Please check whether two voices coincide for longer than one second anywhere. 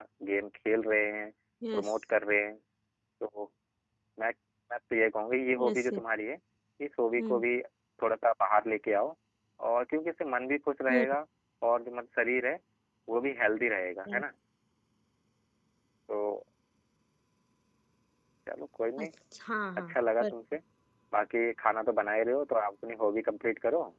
No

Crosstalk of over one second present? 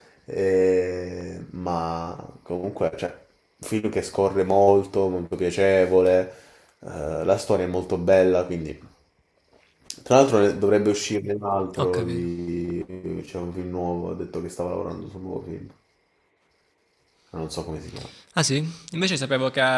No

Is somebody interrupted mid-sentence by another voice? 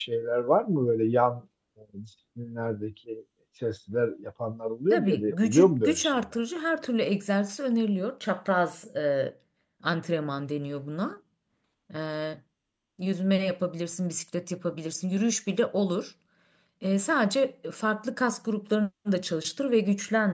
Yes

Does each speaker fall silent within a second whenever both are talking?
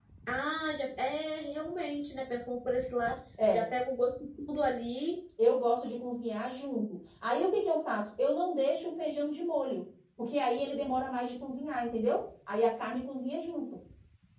Yes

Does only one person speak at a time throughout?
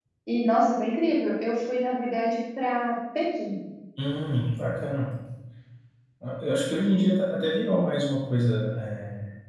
Yes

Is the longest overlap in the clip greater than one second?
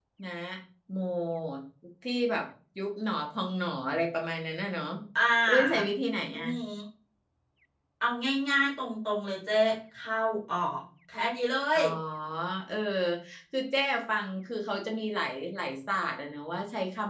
No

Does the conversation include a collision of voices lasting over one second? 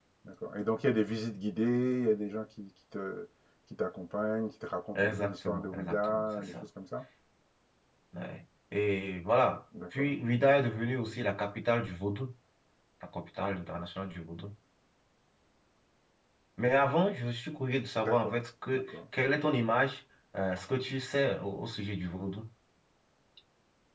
Yes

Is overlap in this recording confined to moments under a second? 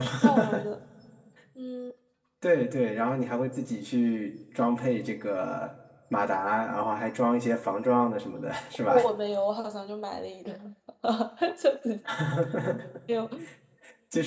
Yes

